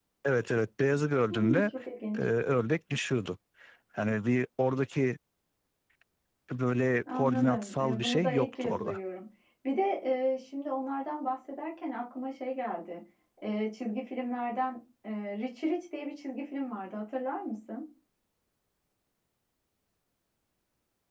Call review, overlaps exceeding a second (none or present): present